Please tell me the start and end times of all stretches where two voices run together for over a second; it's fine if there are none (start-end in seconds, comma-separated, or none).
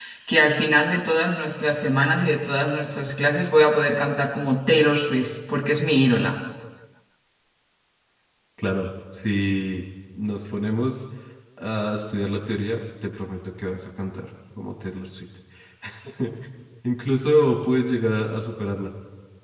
none